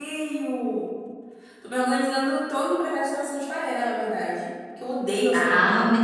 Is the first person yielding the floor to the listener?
Yes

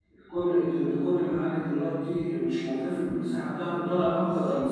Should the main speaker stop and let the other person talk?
Yes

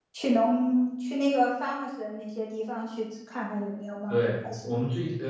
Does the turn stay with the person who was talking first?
No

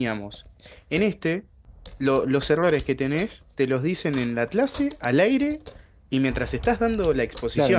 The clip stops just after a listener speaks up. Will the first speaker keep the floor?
No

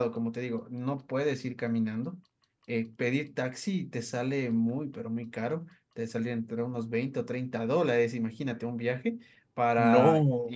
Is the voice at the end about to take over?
No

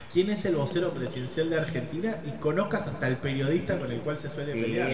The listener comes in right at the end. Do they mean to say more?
Yes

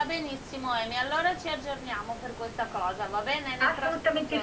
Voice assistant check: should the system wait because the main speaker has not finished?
No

